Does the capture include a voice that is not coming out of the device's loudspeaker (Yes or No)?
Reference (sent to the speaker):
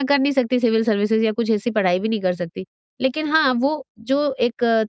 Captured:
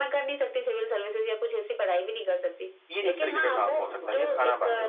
Yes